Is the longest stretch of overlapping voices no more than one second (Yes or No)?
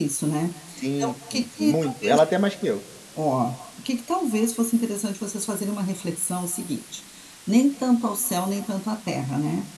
No